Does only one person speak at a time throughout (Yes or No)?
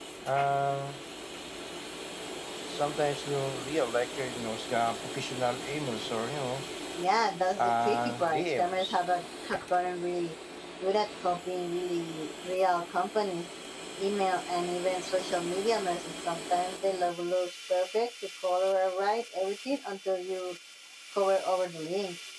No